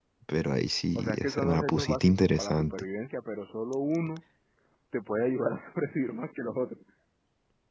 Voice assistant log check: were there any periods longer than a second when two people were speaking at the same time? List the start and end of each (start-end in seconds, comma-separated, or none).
0.9-2.7